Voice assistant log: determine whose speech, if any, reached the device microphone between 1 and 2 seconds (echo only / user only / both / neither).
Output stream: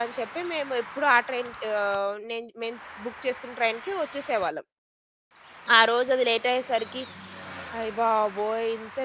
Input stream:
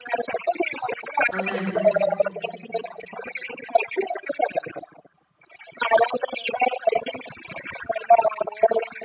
both